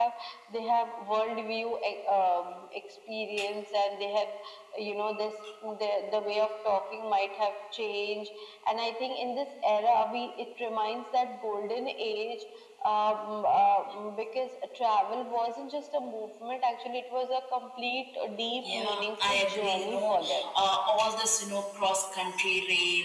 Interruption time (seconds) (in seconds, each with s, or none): 18.6 s